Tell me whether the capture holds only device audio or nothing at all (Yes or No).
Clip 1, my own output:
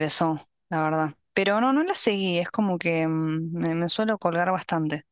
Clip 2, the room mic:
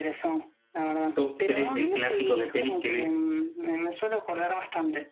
No